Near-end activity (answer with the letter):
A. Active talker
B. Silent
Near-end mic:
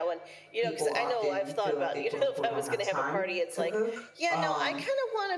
A